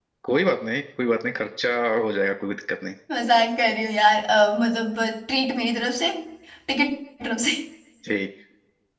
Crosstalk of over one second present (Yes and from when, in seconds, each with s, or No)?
No